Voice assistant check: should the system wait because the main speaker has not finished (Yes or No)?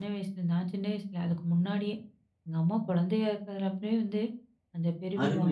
No